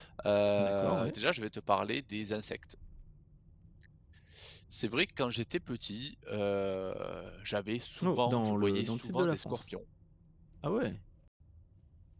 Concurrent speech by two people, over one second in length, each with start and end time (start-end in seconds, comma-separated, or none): 8.0-9.6